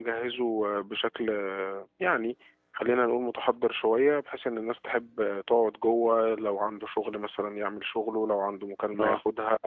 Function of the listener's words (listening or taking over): listening